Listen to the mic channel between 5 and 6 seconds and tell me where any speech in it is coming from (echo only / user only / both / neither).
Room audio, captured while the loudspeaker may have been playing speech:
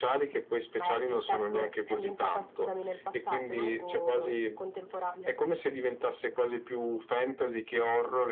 echo only